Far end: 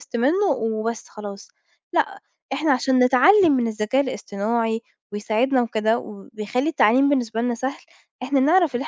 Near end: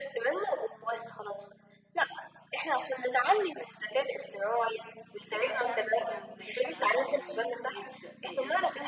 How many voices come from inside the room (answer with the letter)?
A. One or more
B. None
A